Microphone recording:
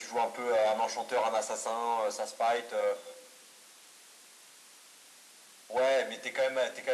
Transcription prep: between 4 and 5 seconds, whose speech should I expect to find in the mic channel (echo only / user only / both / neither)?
neither